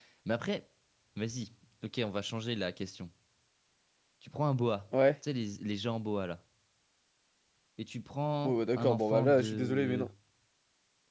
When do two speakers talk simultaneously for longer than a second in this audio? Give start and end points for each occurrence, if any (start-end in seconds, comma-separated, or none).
8.4-10.0